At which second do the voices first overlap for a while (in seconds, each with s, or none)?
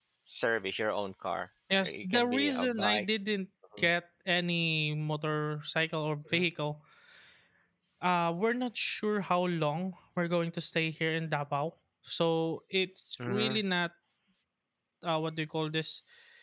1.8 s